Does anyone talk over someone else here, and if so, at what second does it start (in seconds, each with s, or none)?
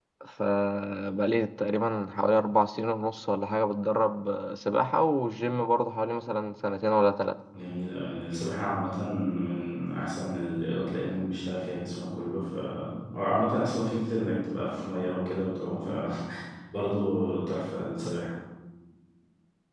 none